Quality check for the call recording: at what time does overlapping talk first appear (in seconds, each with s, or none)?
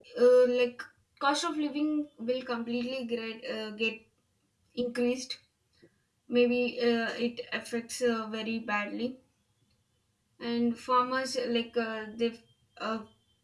none